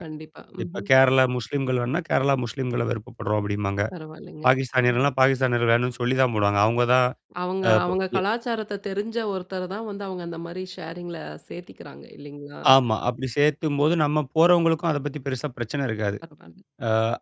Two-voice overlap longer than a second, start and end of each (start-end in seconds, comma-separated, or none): none